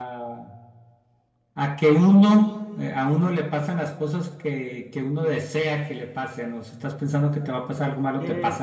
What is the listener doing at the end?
taking over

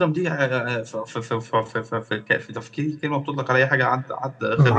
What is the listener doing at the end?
taking over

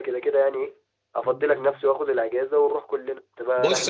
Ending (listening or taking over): taking over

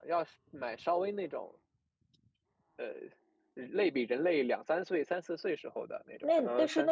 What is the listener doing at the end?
taking over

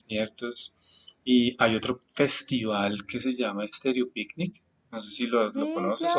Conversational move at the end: taking over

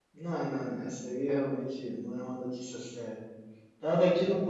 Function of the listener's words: listening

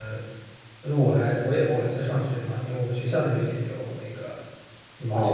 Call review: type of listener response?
taking over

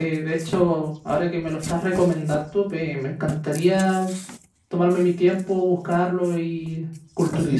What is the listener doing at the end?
taking over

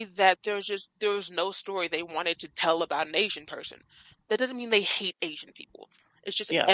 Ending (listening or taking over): listening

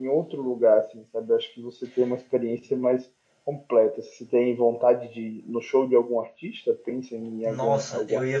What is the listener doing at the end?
taking over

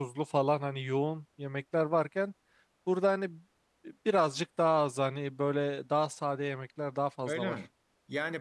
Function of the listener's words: taking over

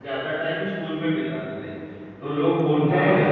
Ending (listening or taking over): listening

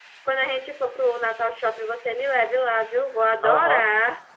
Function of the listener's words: taking over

